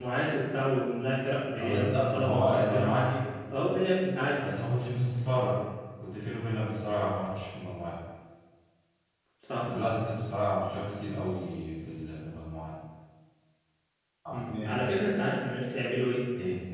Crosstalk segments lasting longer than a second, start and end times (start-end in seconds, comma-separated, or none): 1.6-2.9